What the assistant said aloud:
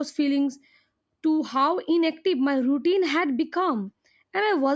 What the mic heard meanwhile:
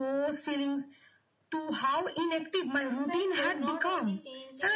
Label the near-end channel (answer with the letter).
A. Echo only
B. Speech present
B